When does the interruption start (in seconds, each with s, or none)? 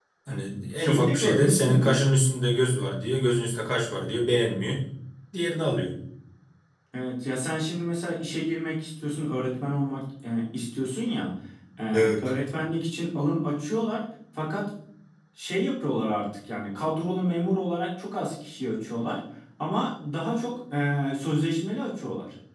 0.8 s